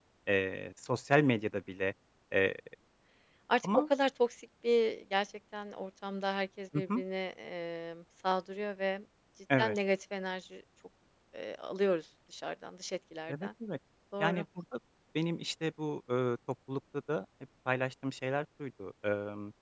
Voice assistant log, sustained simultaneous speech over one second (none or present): none